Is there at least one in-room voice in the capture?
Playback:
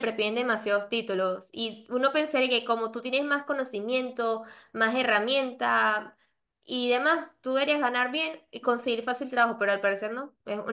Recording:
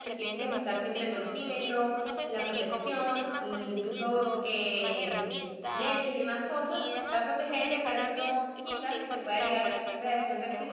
Yes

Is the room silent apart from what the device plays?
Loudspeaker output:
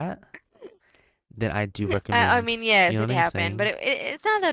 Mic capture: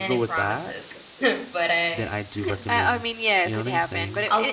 No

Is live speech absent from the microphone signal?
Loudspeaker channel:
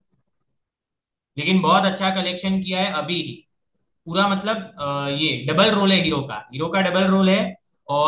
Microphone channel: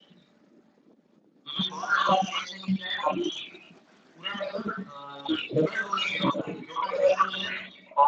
Yes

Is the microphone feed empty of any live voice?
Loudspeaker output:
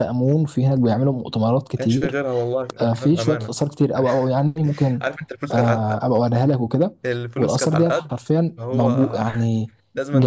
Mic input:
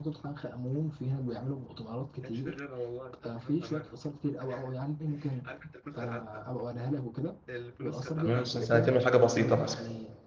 No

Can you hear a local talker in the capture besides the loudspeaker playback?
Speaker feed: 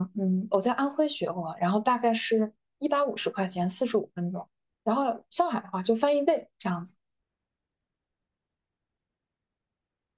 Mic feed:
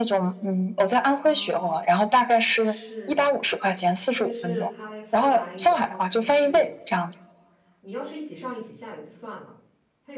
Yes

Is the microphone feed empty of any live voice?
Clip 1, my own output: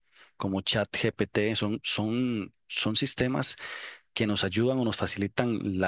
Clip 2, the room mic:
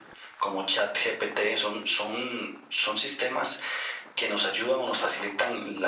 Yes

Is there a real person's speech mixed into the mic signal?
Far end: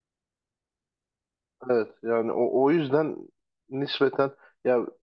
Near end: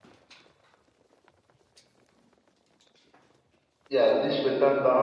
Yes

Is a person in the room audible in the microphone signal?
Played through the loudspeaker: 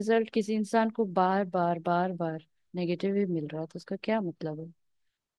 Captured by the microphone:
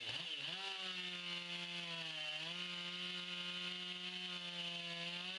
No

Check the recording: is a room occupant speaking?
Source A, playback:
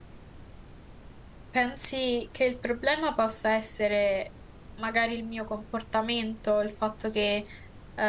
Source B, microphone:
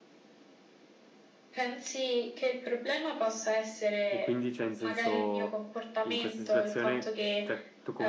Yes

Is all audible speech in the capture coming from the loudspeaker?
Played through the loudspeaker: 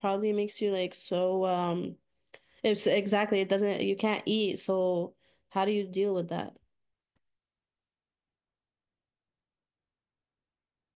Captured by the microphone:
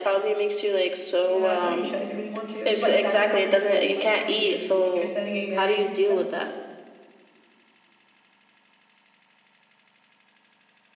No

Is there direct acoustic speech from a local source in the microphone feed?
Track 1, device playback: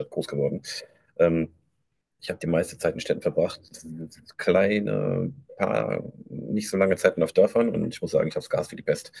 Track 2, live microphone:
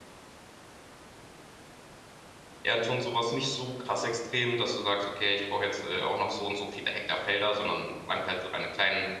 Yes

